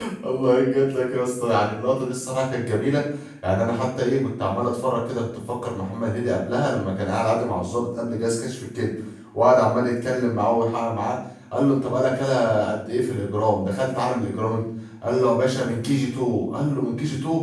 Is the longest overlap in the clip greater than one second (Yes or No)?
No